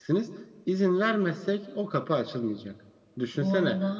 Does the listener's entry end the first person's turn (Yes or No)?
No